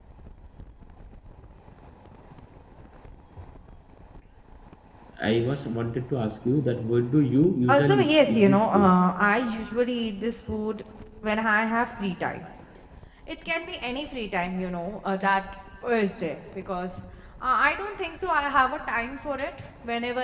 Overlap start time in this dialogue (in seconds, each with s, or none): 7.7 s